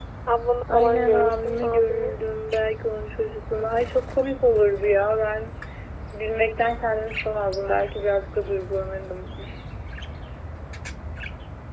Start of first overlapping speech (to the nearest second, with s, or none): 1 s